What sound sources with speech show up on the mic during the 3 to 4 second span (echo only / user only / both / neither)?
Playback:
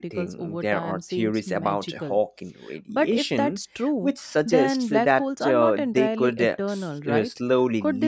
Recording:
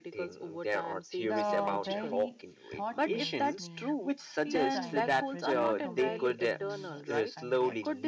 both